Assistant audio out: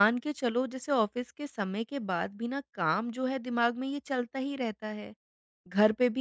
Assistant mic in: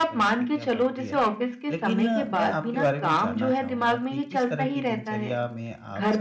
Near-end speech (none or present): present